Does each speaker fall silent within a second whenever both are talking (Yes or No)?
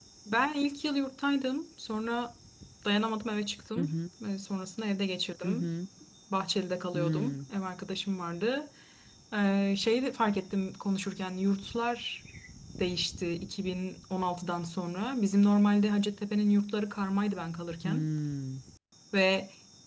Yes